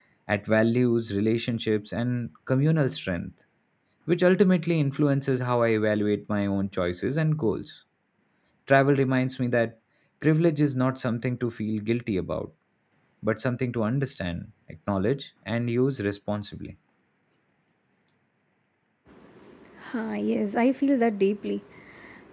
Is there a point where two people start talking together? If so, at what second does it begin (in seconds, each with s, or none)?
none